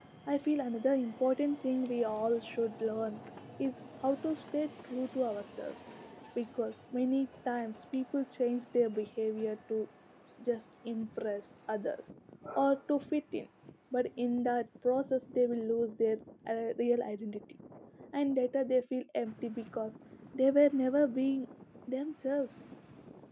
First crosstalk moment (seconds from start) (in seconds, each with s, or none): none